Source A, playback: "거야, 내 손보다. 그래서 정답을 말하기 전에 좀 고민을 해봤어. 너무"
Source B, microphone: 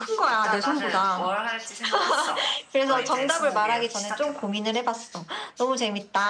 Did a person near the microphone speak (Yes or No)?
Yes